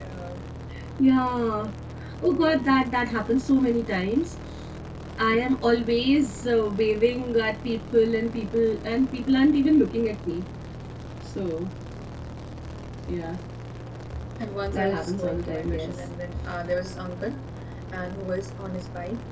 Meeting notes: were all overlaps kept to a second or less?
No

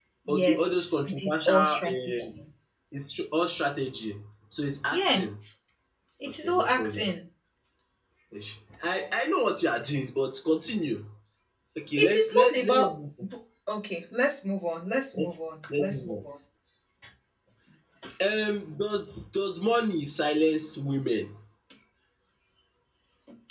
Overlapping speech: Yes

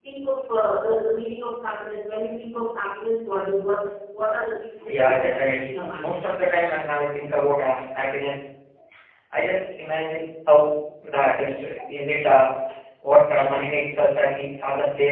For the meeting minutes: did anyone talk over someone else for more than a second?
Yes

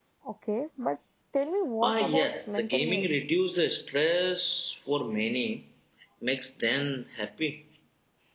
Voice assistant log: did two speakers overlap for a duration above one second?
Yes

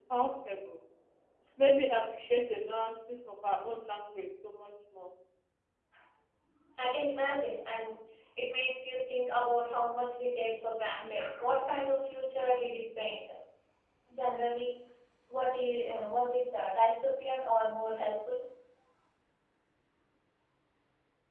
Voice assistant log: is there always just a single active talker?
Yes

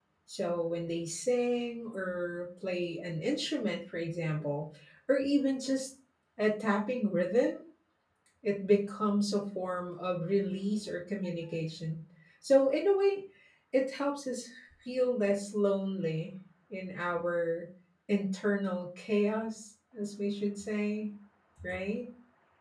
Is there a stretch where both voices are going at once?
No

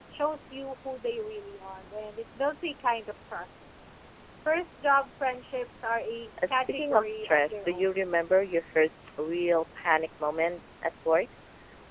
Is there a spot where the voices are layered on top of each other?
Yes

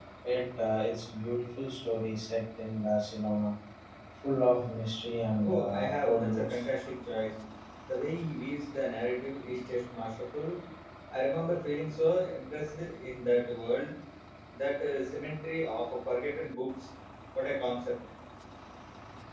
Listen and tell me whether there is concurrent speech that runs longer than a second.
Yes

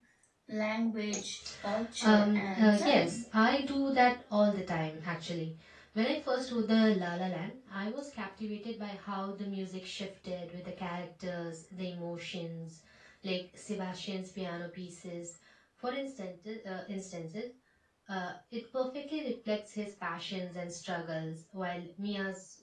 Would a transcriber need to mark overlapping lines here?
Yes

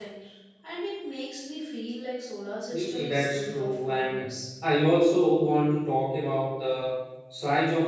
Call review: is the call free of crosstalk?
No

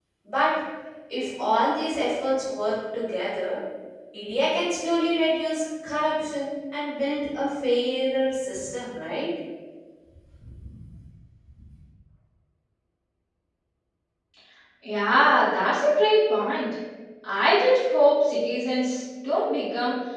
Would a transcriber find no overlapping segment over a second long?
Yes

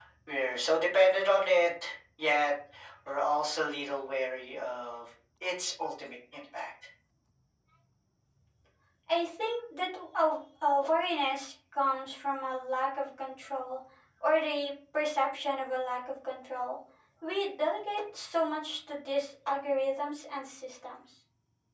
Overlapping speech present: No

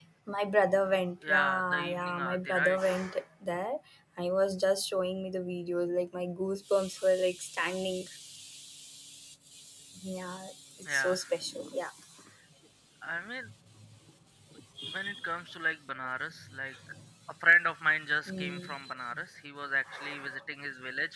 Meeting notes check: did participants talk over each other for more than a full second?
Yes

